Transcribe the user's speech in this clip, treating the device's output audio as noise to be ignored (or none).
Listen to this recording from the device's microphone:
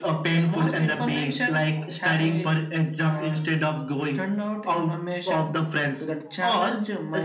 none